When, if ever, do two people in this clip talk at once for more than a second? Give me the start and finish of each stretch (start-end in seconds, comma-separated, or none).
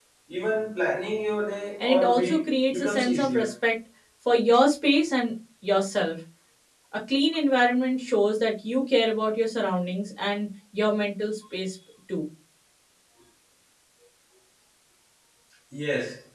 1.8-3.5